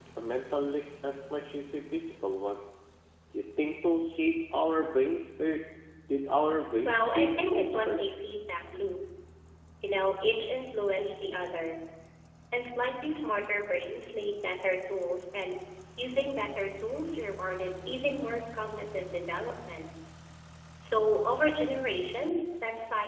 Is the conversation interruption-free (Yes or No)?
No